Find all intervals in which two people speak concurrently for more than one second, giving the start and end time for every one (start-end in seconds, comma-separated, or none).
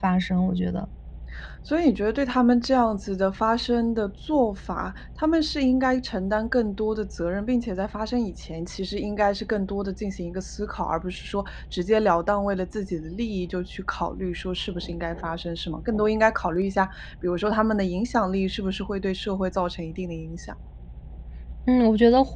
none